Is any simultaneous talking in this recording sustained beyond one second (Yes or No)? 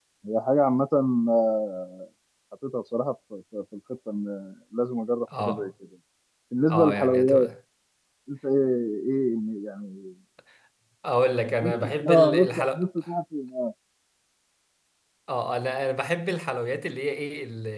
Yes